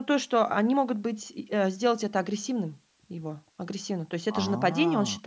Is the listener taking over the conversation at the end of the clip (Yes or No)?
No